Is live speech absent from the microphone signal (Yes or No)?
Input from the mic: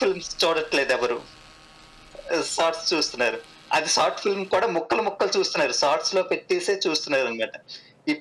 Yes